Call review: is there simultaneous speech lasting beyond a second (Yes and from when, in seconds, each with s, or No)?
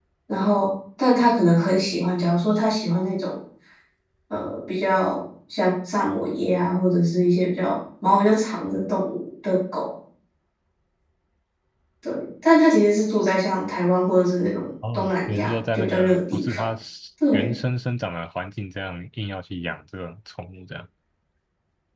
Yes, from 14.9 s